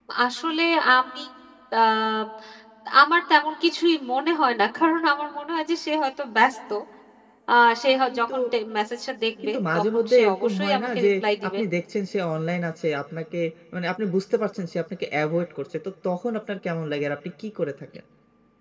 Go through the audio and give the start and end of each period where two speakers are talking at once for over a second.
9.4-11.1

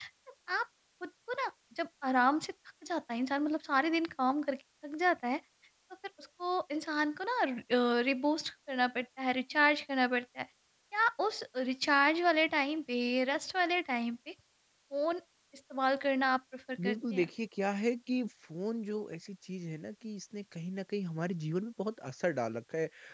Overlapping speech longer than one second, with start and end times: none

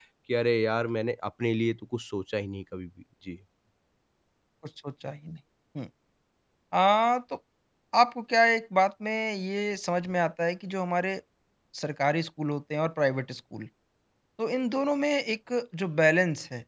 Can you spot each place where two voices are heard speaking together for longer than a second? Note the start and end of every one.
none

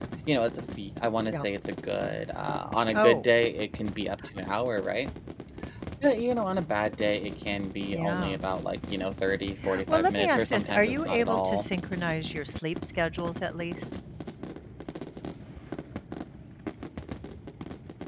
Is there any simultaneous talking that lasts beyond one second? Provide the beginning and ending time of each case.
9.9-11.7

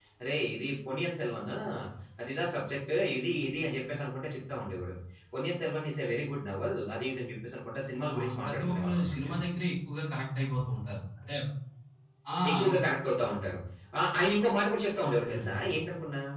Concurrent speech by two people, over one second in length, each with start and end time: 8.2-9.4

